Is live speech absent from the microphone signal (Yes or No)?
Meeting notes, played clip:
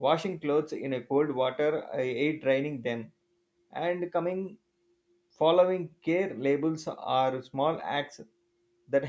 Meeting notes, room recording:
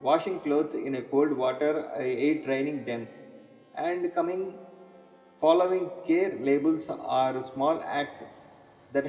Yes